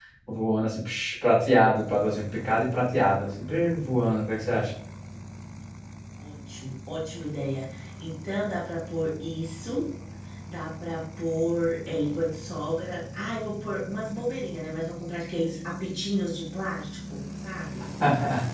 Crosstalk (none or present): none